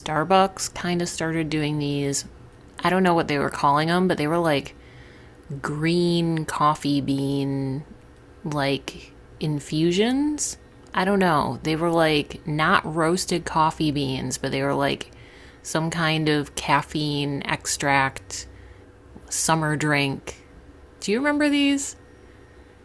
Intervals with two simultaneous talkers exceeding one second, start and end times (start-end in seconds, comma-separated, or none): none